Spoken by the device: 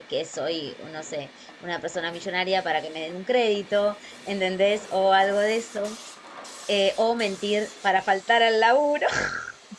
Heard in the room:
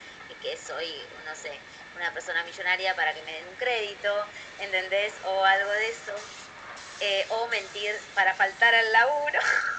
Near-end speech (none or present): none